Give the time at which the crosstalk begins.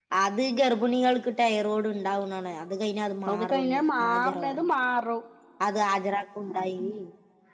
3 s

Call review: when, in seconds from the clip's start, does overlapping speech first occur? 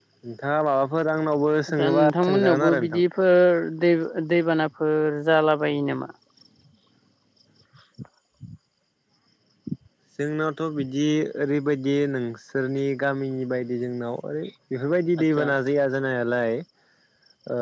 2 s

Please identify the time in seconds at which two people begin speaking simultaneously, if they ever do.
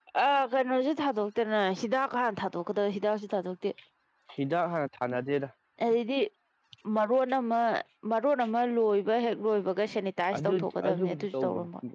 10 s

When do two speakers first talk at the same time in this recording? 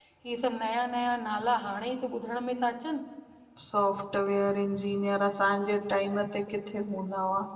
none

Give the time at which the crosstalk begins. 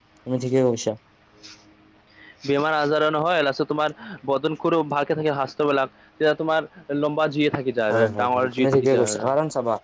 8 s

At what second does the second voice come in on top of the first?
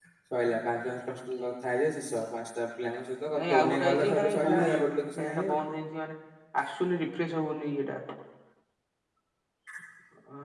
3 s

